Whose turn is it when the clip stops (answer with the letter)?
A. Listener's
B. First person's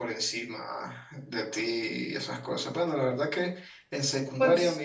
B